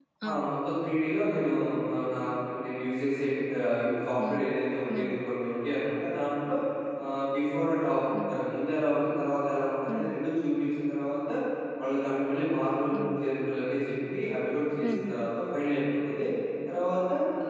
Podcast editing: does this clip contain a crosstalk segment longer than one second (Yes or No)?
No